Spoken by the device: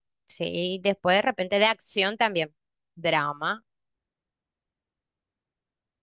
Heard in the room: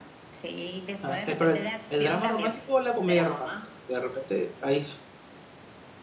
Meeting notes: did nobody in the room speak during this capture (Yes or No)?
No